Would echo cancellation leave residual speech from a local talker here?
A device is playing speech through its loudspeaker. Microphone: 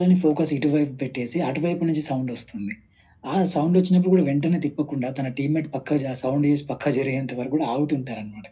No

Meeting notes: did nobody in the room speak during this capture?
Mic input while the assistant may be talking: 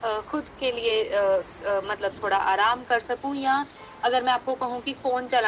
Yes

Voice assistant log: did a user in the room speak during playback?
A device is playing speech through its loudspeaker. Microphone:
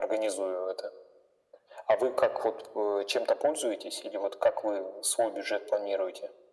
No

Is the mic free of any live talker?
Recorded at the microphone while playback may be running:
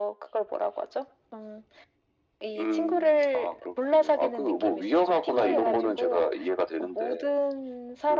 No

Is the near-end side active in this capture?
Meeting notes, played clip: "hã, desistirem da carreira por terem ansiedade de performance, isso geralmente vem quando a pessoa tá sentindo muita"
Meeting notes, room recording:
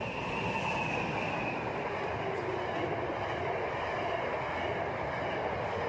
No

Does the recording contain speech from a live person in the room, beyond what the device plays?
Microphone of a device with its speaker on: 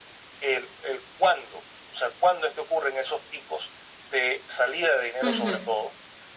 Yes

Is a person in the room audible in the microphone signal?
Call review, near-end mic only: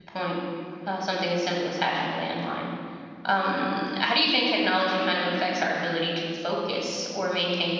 Yes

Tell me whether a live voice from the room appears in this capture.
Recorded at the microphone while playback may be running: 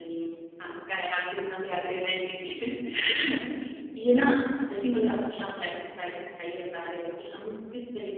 Yes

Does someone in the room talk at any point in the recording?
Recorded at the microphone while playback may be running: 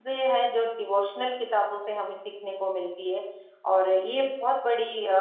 Yes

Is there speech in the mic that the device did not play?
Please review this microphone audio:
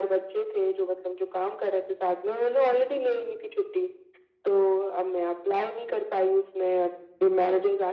No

